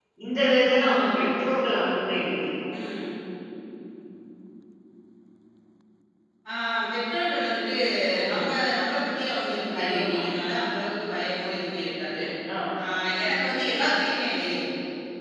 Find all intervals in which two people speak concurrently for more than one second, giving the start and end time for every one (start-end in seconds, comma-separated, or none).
none